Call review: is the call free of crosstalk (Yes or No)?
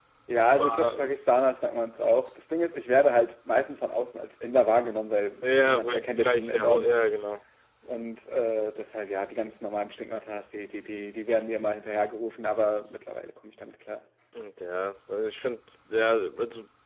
No